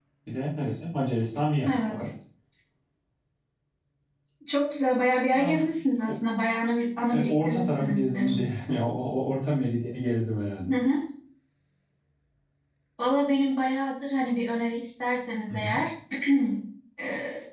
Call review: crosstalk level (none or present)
present